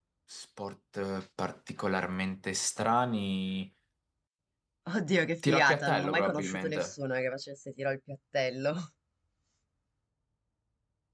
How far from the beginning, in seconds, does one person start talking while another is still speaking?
5 s

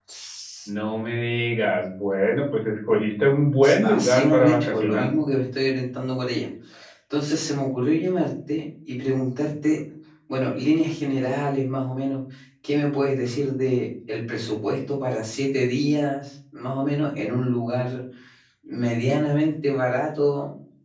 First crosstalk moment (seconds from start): 4 s

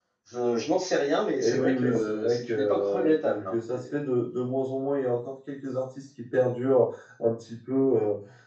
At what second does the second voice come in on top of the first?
1 s

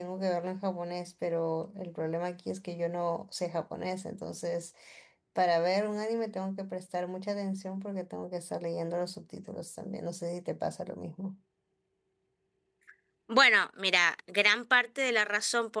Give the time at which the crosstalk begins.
none

